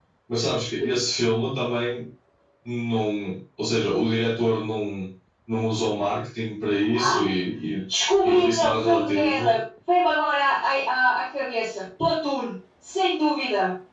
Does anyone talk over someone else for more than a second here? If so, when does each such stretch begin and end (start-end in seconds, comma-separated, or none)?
8.2-9.5